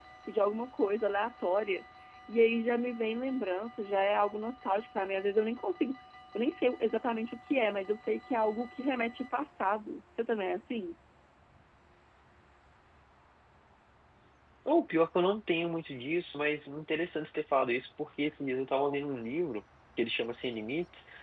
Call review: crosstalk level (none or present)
none